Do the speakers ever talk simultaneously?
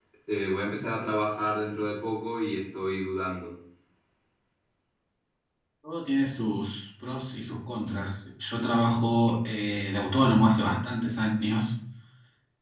No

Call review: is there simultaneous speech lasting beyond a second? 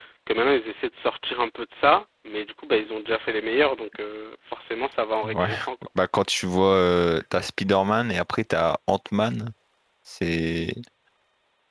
No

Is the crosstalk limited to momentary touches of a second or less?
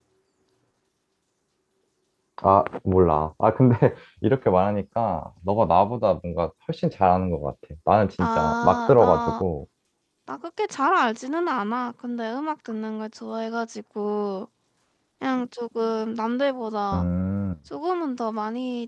No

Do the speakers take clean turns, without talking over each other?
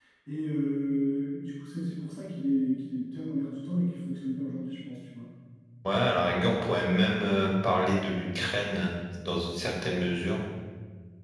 Yes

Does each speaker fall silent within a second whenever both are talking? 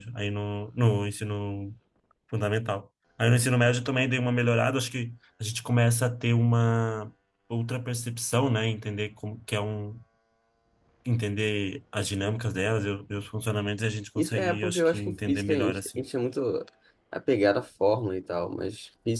No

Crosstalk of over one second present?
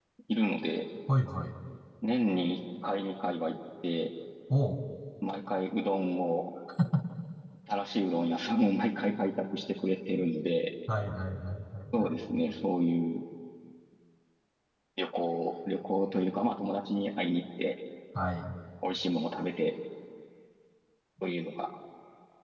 No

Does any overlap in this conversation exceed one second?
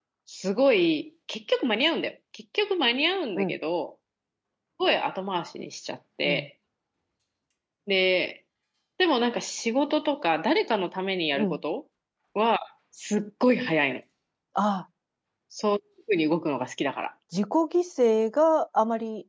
No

